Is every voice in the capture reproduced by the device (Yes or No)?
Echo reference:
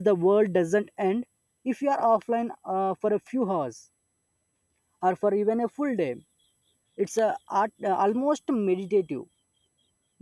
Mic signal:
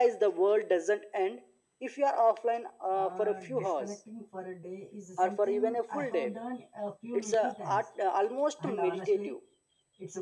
No